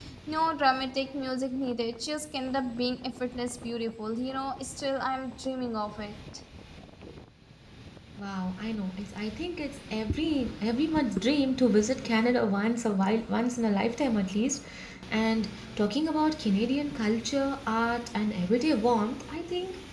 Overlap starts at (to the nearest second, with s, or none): none